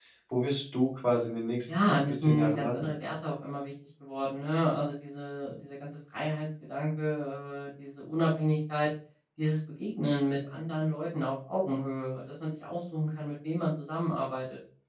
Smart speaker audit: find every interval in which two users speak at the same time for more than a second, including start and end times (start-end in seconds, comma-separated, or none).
1.7-2.9